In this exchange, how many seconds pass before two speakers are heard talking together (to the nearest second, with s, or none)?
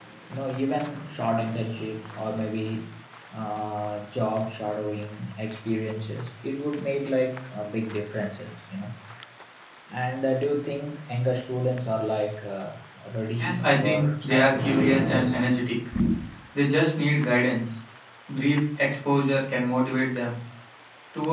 13 s